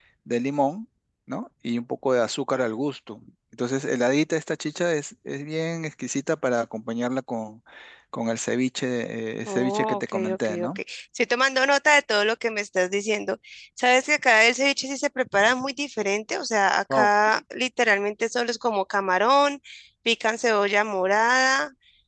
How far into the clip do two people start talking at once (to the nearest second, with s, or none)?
9 s